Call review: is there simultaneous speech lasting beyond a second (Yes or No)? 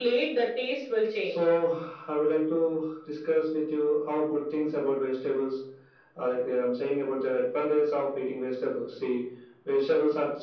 No